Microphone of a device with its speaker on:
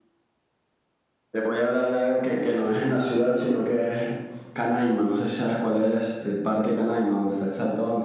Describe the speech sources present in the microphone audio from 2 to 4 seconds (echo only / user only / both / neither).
echo only